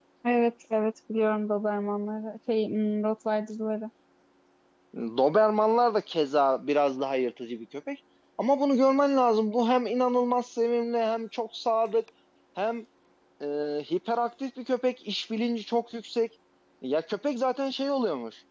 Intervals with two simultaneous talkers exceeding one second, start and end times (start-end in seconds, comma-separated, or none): none